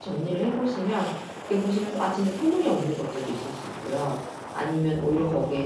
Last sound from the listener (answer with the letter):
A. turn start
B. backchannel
B